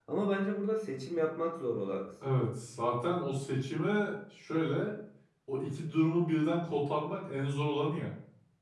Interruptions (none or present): none